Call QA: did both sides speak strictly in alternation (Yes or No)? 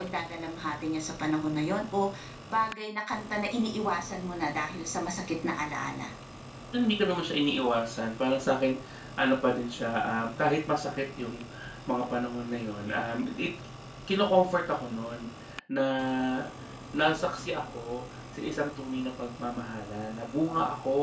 Yes